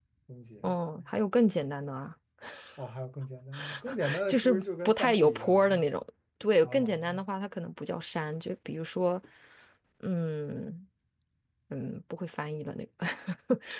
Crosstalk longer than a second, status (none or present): present